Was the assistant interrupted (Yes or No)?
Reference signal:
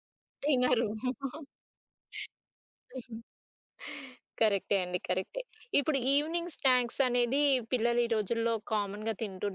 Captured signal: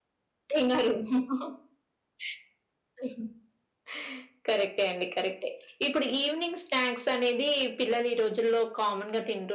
No